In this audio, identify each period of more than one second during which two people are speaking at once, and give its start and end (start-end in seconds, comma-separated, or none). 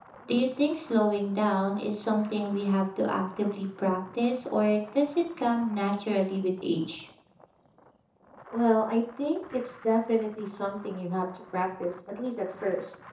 none